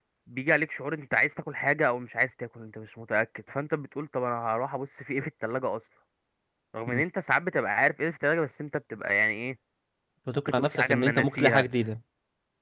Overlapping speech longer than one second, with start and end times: 10.4-11.7

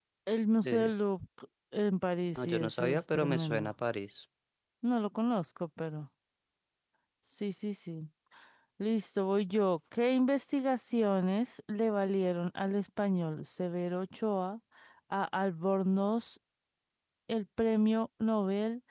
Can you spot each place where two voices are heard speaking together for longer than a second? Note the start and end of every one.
2.4-3.7

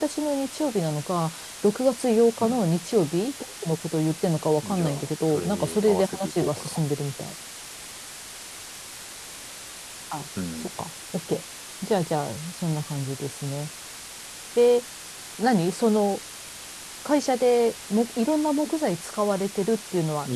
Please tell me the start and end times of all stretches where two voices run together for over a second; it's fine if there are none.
4.6-6.8

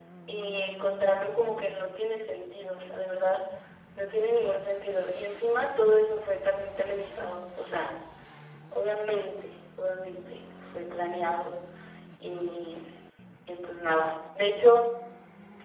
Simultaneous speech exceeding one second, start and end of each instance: none

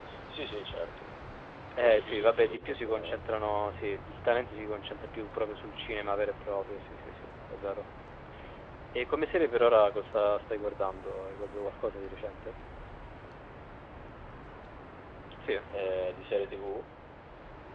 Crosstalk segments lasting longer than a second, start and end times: 1.8-3.2

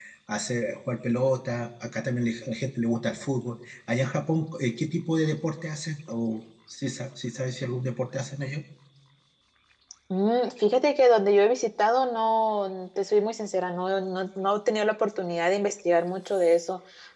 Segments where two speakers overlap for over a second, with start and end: none

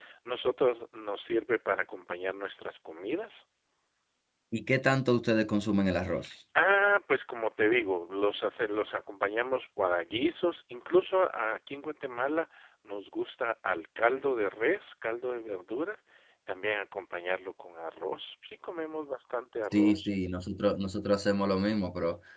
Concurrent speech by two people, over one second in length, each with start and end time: none

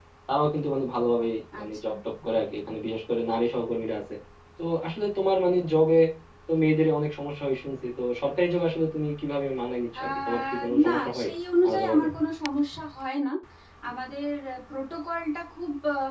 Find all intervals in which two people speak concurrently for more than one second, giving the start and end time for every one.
10.0-11.3

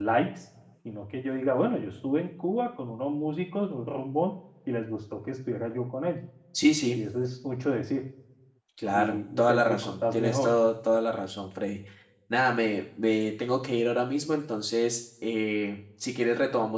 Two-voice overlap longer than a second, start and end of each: 8.9-10.5

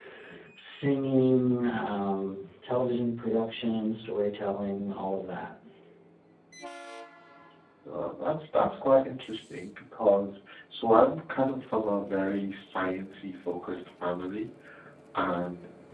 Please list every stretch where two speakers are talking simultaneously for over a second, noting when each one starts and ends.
none

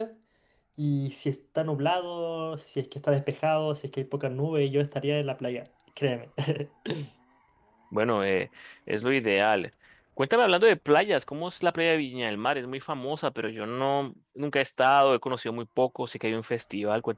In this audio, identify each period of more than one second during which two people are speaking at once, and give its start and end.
none

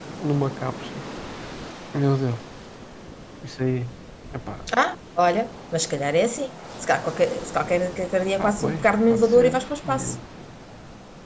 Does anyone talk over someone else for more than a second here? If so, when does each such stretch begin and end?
8.4-10.2

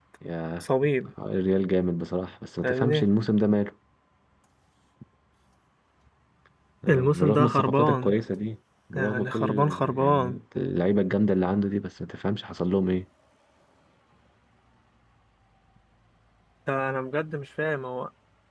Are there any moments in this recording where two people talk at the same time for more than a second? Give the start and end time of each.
6.9-8.2, 8.9-10.4

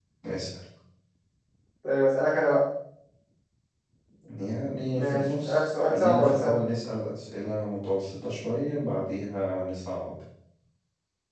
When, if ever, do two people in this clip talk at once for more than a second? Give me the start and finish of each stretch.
4.9-6.5

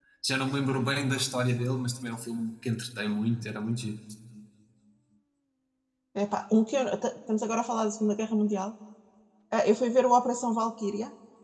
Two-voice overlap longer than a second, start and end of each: none

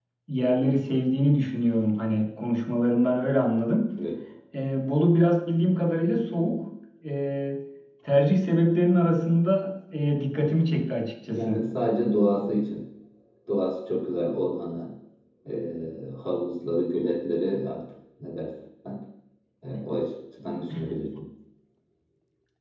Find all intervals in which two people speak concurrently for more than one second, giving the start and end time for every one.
none

